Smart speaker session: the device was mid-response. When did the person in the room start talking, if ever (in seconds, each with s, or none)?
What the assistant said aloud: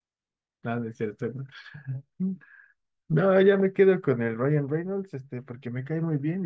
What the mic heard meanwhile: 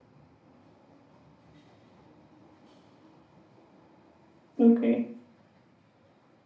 4.6 s